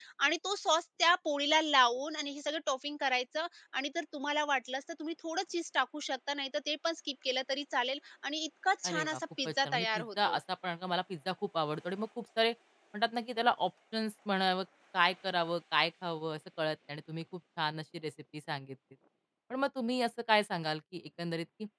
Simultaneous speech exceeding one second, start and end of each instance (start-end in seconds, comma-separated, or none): 8.8-10.4